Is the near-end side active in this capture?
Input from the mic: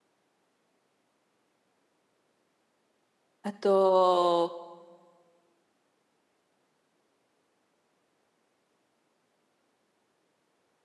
Yes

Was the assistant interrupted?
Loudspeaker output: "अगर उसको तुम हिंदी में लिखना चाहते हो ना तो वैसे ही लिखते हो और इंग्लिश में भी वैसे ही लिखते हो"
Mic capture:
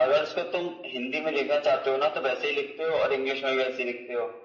No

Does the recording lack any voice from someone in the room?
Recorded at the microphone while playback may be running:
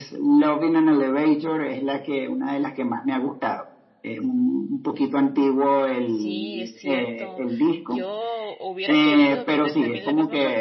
No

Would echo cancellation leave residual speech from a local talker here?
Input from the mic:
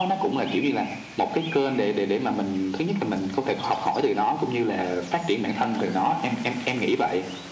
No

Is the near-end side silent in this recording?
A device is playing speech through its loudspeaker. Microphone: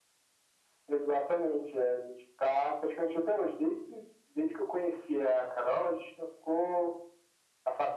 Yes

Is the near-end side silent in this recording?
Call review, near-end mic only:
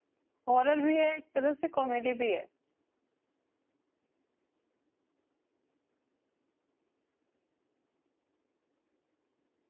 No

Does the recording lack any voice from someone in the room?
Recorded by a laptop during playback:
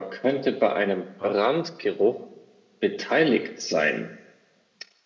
No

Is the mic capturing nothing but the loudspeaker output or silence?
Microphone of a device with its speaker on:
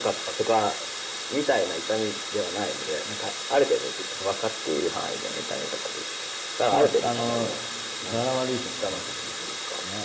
No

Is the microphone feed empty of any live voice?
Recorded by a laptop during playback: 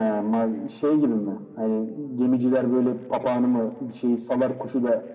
Yes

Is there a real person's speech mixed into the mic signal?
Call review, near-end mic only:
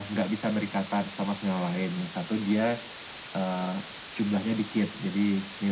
No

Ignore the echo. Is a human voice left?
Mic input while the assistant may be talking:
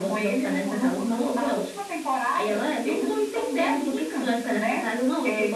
No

